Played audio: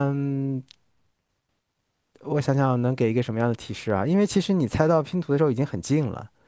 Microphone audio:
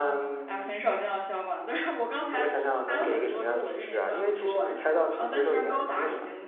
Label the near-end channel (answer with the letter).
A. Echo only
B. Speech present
B